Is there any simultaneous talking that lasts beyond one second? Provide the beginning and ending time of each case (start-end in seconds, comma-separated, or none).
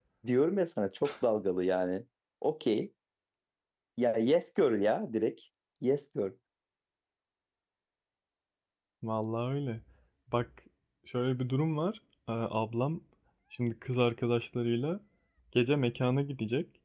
none